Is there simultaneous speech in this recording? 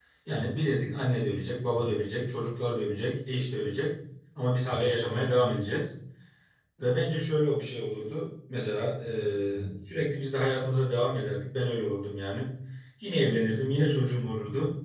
No

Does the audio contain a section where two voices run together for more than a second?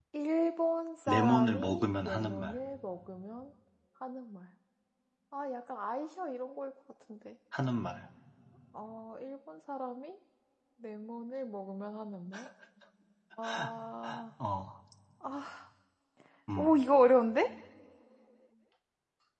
Yes, from 1.1 s

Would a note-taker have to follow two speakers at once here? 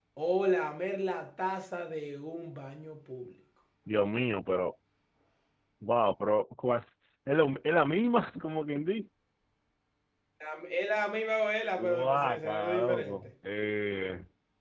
Yes, from 11.8 s

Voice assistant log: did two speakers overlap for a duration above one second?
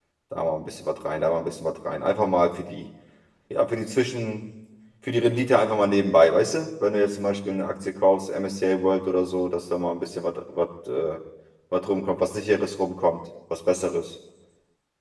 No

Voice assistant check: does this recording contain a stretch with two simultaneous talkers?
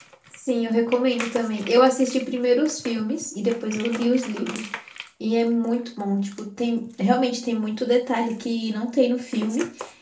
No

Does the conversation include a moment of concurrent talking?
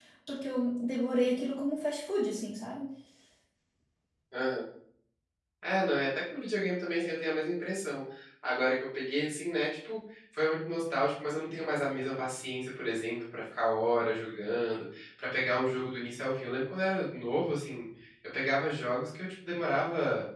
No

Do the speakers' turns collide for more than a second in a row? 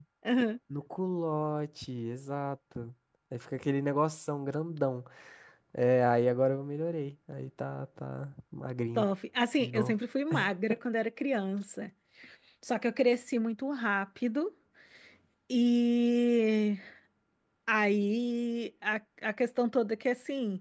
No

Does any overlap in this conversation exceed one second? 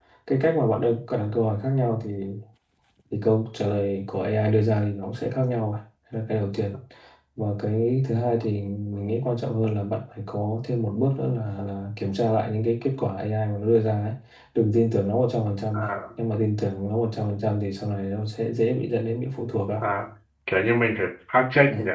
No

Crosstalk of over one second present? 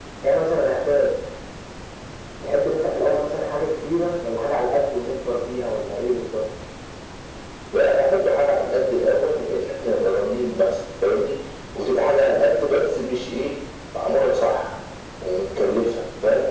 No

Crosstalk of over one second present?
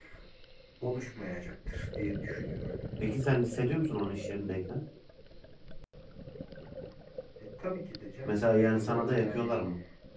Yes, from 8.2 s

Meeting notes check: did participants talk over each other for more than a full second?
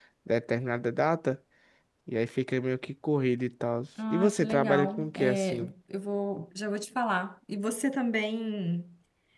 Yes, from 4.0 s

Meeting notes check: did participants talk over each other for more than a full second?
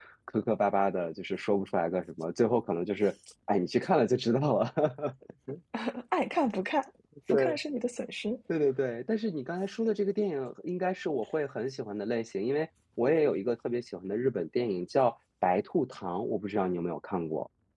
No

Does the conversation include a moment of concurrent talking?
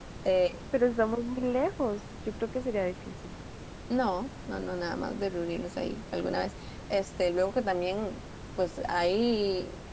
No

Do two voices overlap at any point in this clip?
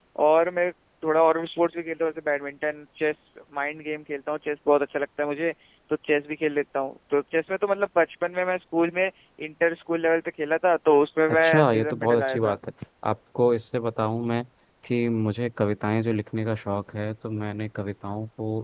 Yes, from 11.3 s

